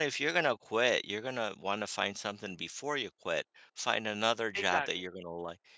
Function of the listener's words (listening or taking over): listening